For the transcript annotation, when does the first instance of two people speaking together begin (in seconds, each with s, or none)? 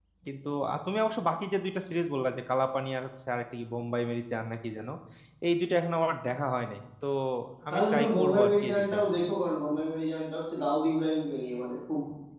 7.7 s